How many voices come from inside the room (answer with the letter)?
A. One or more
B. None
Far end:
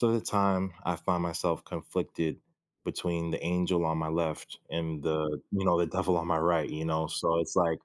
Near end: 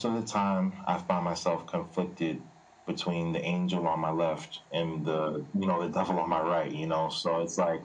B